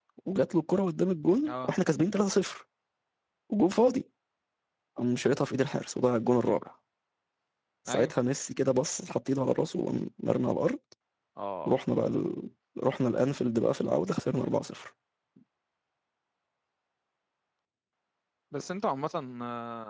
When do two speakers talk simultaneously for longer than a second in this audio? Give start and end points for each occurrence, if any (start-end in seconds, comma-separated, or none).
none